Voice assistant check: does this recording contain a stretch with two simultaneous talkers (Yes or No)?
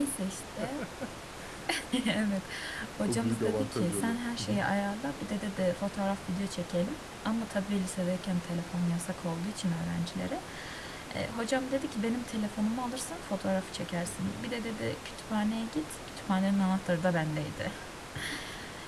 Yes